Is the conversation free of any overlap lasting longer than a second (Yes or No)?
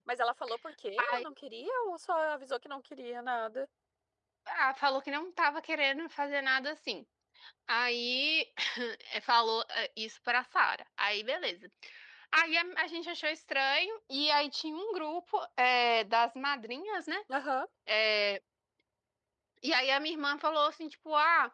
Yes